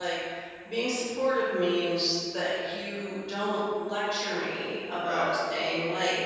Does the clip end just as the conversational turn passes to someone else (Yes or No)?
No